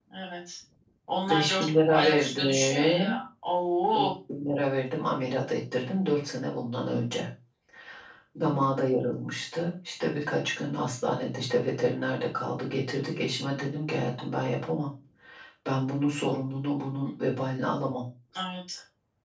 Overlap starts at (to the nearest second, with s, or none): 1 s